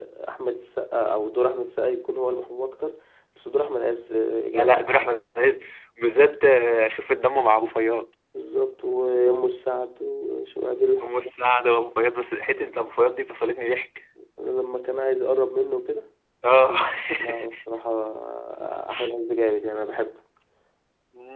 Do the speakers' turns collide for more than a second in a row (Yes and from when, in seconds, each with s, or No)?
No